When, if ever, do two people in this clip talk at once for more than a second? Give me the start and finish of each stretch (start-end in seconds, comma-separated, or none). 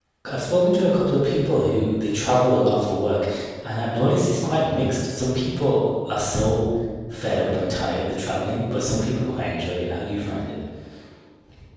none